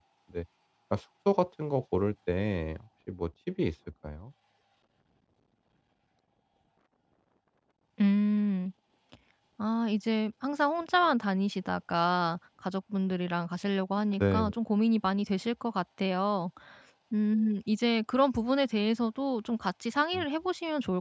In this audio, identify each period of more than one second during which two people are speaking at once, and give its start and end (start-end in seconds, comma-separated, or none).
none